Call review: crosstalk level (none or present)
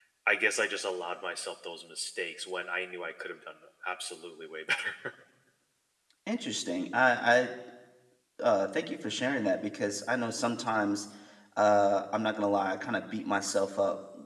none